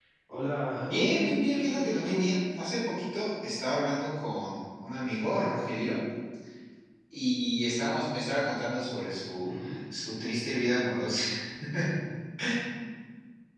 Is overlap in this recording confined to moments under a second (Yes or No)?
No